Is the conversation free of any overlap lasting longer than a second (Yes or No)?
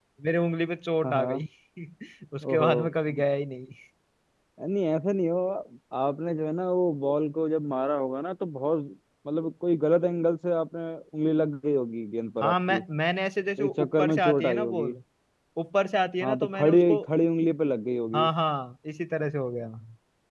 No